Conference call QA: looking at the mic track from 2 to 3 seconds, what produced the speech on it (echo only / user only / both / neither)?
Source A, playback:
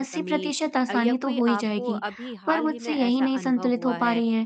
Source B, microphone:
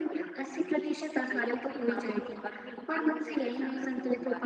echo only